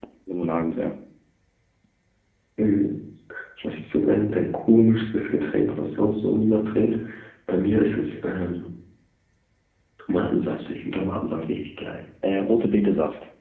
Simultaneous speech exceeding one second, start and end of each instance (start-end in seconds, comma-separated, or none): none